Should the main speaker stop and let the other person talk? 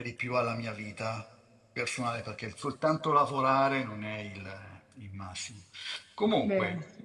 No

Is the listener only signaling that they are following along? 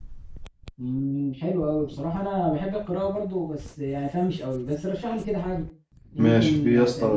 No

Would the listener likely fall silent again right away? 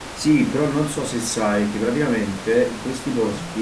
Yes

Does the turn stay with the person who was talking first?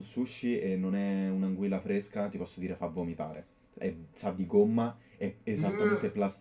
Yes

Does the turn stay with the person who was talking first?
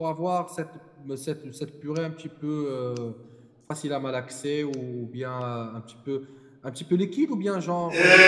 No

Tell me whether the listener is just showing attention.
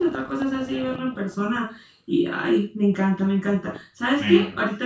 Yes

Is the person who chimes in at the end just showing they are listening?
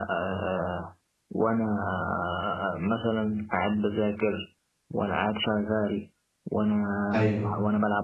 Yes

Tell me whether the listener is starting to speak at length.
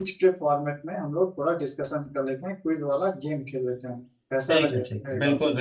Yes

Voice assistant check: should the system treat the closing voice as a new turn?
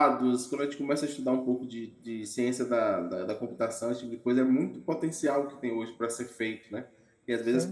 No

